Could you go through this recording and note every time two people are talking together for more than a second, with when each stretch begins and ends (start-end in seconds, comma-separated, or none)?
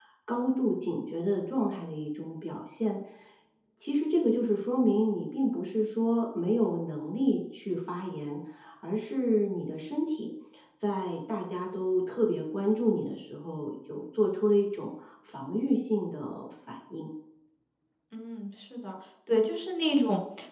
none